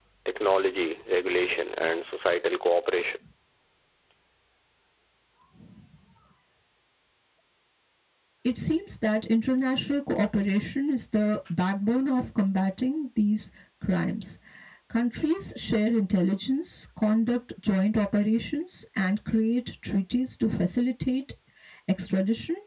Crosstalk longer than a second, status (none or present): none